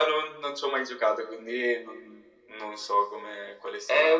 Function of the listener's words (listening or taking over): taking over